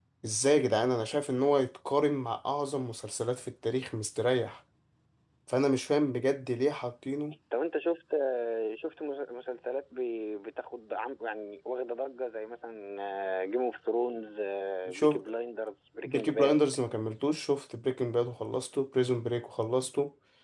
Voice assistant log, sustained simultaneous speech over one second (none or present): none